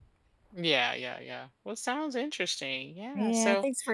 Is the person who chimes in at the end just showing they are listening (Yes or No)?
No